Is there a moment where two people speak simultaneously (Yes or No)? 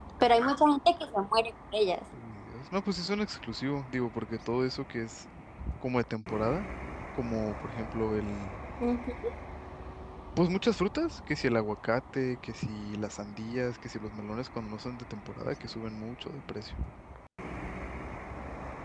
No